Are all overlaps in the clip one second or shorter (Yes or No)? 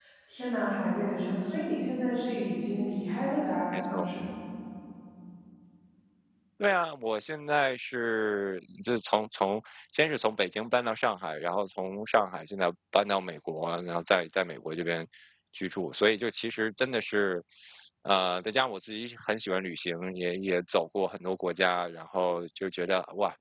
Yes